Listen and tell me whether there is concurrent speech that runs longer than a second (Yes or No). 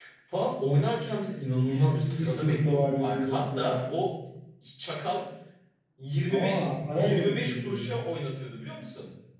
Yes